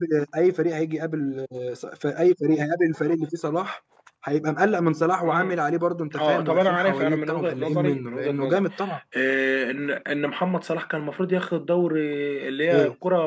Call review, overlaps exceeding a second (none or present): present